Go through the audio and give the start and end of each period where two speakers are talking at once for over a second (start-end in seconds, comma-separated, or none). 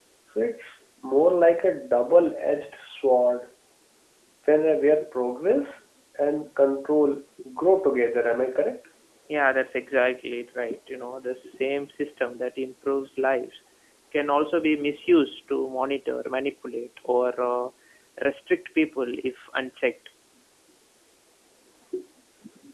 none